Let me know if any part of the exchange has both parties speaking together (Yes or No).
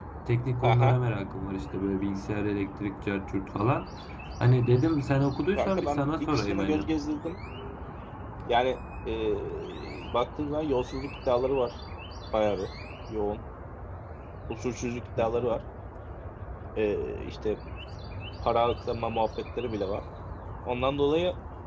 Yes